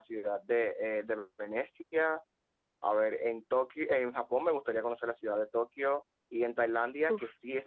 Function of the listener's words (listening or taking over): listening